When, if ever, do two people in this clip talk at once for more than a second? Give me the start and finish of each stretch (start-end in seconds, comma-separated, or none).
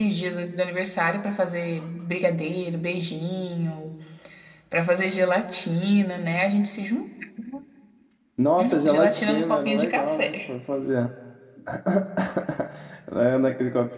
8.8-10.4